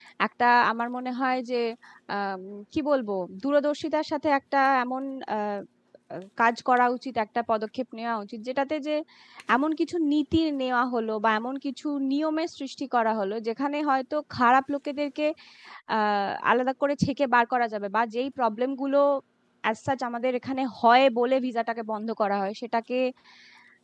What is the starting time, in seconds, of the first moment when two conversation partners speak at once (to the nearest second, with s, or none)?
none